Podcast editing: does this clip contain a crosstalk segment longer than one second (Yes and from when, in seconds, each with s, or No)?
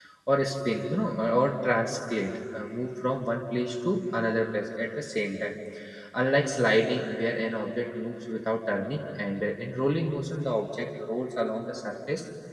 No